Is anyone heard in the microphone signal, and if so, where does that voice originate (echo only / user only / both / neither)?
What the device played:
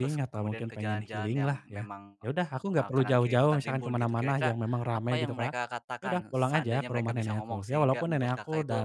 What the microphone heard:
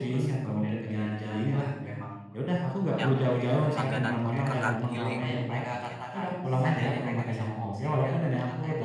both